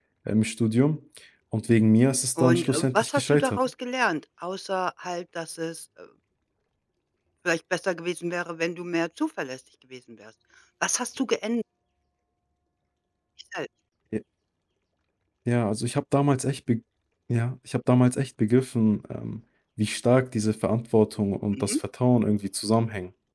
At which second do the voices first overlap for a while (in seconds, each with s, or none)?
2.4 s